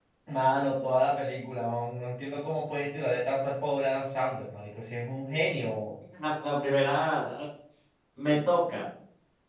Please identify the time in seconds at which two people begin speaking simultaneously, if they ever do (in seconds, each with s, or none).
none